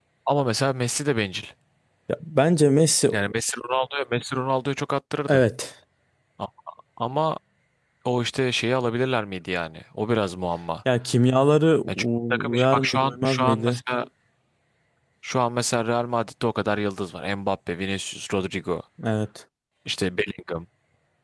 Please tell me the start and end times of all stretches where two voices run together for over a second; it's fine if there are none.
11.9-13.8

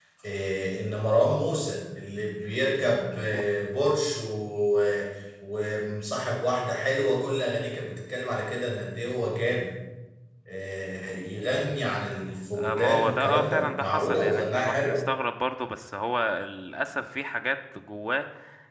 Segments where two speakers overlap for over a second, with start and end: 12.5-15.0

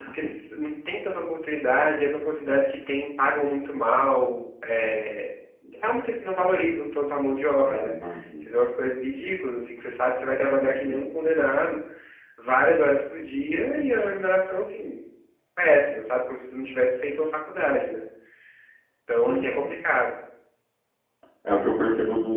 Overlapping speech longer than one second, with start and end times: none

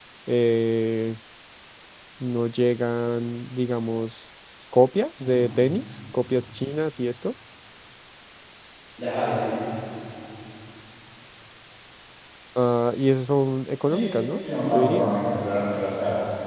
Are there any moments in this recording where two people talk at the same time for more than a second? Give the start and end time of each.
13.8-15.1

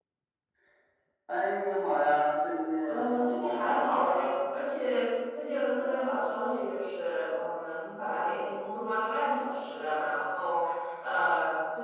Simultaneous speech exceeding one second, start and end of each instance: 2.9-4.4

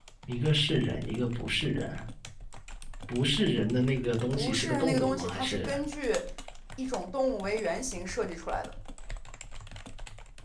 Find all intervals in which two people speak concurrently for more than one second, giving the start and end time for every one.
4.3-5.7

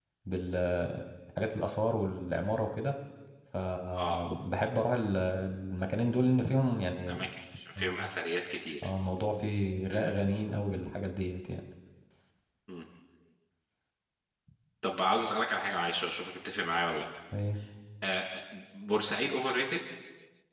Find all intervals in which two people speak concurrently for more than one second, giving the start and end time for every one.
none

